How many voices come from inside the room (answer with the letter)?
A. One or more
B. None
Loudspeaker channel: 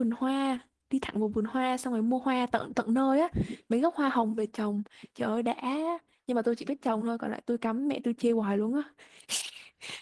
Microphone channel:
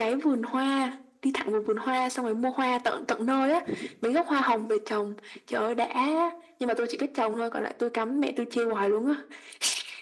B